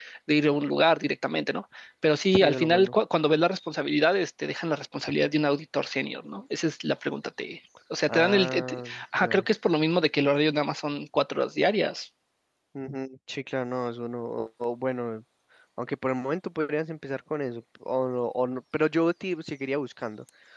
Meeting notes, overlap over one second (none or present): present